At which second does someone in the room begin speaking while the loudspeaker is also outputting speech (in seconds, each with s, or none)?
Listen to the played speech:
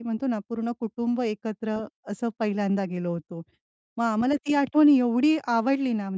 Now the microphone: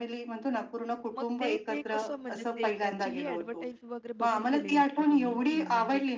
1.2 s